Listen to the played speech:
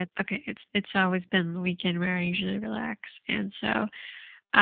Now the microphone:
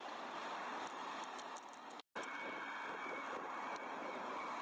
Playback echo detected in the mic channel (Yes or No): No